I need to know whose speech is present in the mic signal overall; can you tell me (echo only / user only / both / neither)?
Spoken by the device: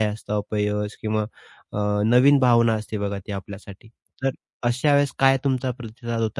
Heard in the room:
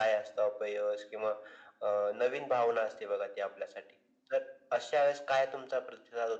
echo only